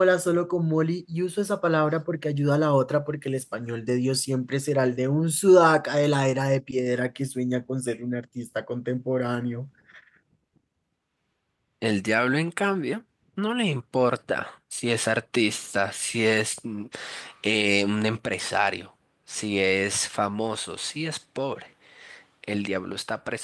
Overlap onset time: none

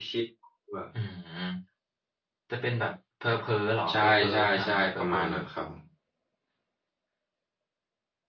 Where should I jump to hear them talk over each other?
4 s

